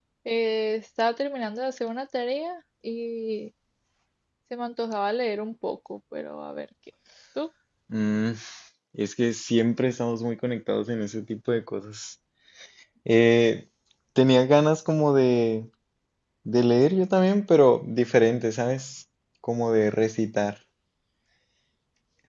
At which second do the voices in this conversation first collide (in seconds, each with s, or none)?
none